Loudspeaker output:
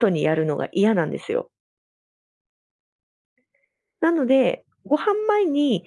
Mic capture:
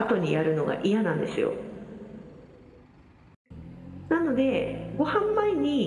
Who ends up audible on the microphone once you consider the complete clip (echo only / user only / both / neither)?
echo only